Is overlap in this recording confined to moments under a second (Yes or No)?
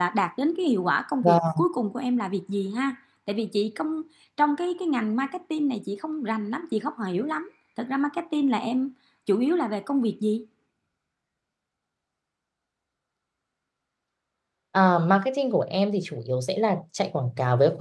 Yes